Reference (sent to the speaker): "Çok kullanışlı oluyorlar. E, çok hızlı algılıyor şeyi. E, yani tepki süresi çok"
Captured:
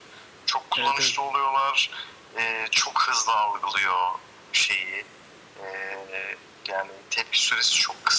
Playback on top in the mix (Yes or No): Yes